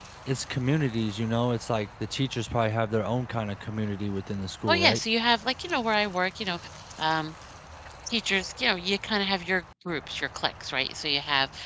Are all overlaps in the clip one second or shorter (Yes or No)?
Yes